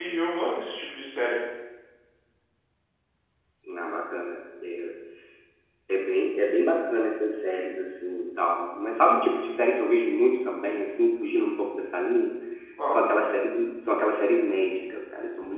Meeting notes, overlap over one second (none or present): none